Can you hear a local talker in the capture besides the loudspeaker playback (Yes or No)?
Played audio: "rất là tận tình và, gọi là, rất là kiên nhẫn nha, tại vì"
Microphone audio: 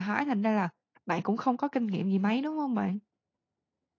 Yes